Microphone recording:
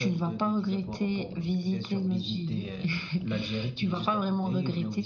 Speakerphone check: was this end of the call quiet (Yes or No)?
Yes